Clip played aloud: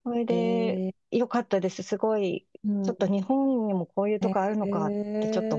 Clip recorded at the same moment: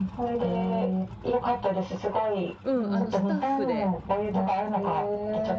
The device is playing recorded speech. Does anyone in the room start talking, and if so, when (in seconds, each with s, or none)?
2.6 s